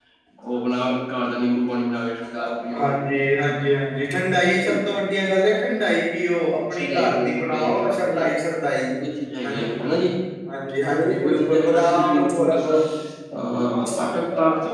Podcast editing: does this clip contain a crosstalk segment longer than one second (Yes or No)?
Yes